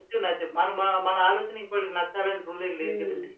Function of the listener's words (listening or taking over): taking over